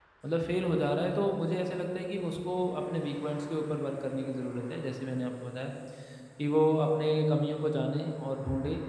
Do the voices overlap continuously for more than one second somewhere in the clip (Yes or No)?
No